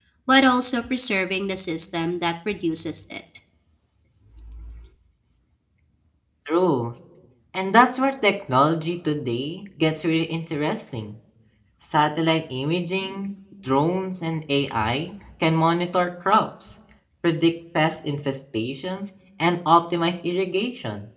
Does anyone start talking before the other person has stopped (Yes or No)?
No